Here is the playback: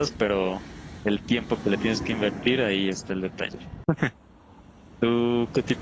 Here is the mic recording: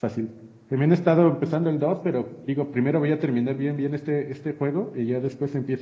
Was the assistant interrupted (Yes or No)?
Yes